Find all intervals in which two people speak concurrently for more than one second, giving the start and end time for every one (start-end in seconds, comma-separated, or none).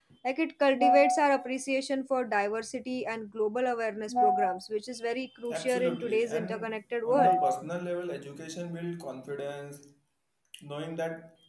5.5-7.4